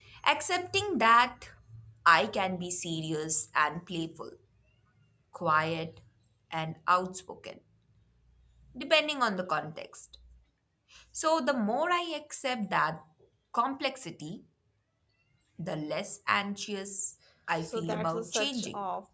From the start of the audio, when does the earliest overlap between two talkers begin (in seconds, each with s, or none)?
17.6 s